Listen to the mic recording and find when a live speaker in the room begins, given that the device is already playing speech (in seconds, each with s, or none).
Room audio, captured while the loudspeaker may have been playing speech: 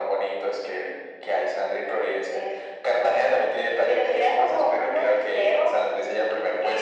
none